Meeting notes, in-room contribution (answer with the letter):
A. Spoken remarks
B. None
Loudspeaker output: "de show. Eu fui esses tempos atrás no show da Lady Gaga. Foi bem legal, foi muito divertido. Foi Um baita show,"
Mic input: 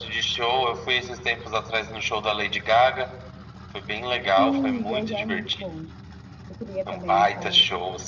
A